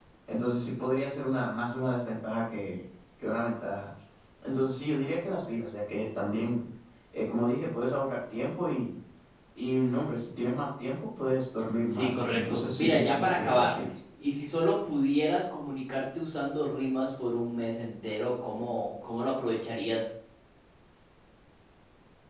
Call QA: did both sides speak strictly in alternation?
No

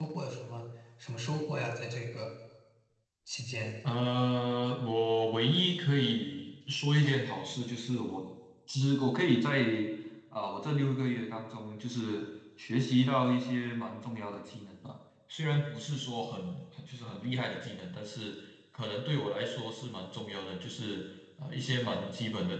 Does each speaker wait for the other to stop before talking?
Yes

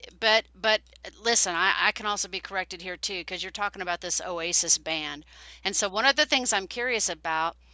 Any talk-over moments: No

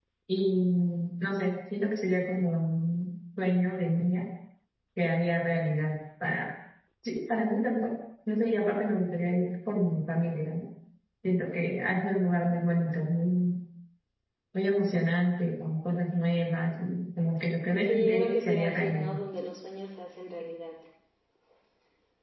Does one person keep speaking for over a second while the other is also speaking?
Yes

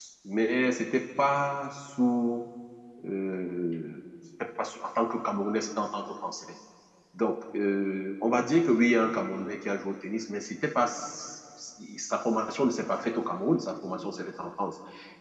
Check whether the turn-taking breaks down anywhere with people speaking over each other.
No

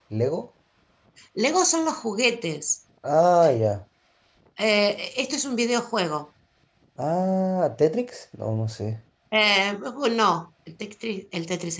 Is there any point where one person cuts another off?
No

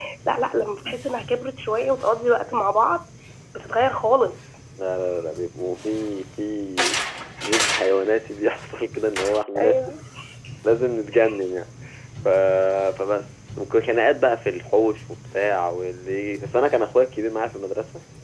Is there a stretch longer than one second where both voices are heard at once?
No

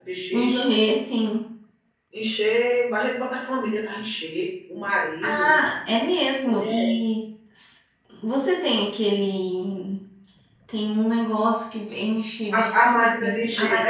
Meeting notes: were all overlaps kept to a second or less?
No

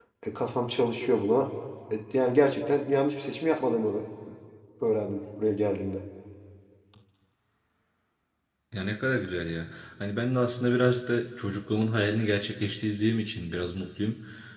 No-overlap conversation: Yes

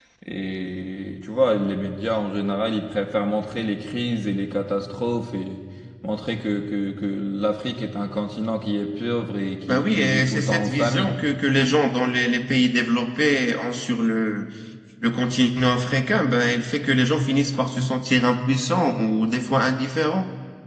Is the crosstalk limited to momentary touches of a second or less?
No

